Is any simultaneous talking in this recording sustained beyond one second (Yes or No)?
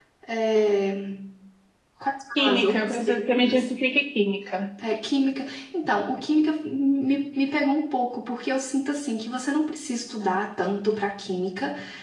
Yes